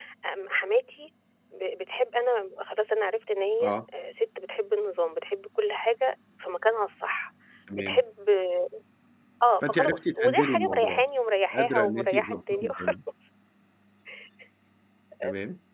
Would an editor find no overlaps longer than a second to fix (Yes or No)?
No